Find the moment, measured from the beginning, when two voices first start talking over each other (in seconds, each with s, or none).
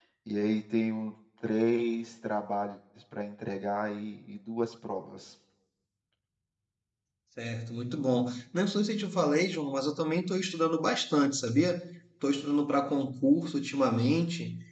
none